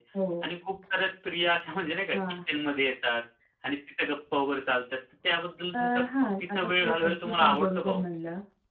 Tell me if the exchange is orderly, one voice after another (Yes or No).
No